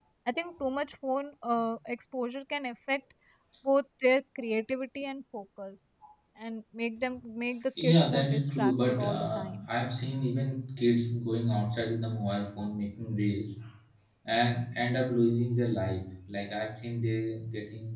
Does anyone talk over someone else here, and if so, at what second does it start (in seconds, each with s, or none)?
7.8 s